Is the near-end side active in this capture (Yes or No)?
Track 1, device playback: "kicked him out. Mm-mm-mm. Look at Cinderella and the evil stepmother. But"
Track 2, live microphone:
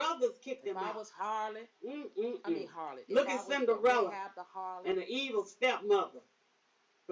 Yes